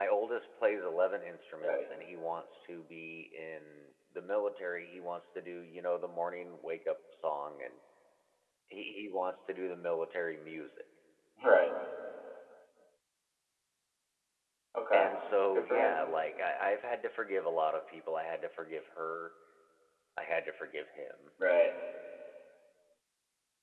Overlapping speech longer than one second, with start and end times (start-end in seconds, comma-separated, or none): none